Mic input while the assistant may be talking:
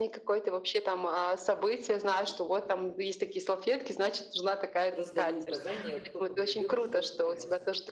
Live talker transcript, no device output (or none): раздаю указания, кто куда идёт и что приносит.